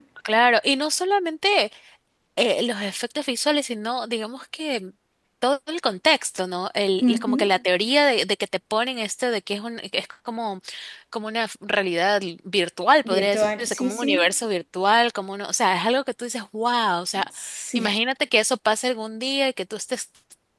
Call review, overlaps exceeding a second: present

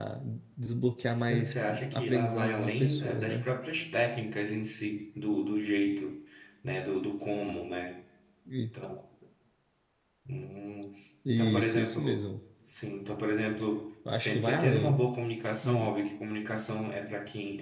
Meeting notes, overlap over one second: present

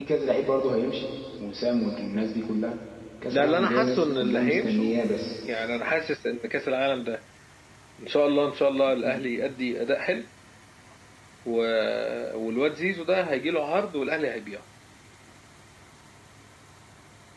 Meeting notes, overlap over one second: present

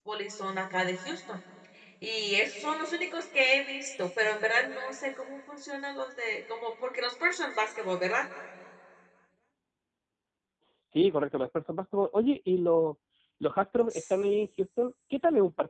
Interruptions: none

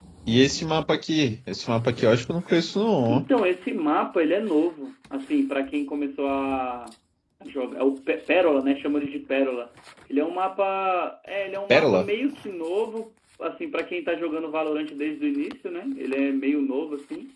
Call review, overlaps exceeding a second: none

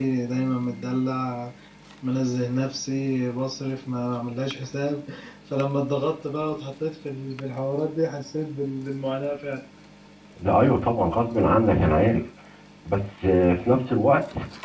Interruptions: none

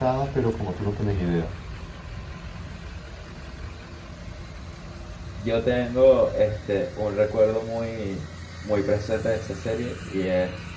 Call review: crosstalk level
none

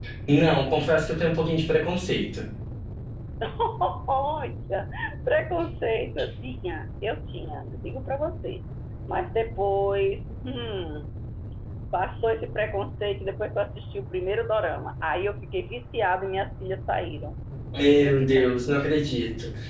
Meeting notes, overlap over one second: none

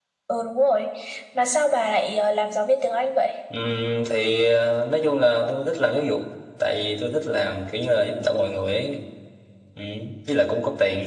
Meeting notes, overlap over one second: none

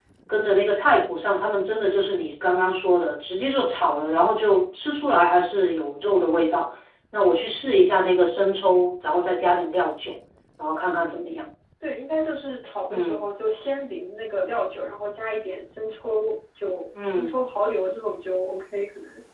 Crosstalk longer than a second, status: none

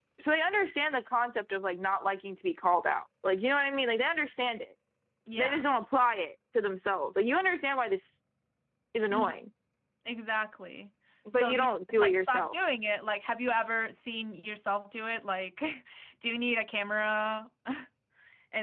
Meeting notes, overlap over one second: present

